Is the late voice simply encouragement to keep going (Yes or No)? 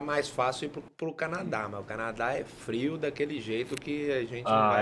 No